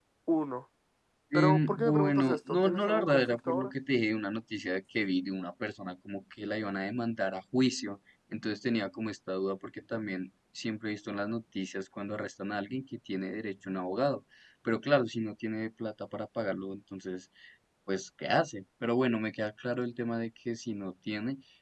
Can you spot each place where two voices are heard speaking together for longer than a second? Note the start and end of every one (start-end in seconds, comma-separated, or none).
1.3-3.7